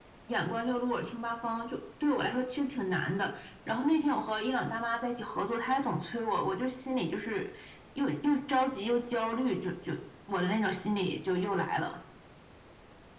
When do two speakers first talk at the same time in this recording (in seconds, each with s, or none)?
none